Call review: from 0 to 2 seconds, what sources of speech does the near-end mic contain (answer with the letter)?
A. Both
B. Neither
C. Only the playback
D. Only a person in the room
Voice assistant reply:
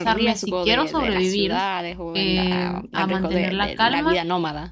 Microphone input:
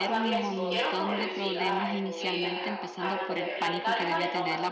A